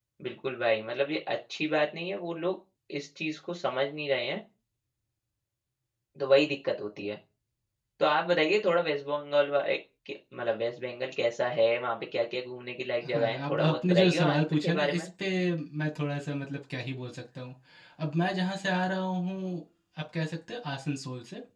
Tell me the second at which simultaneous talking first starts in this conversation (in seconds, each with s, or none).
13.0 s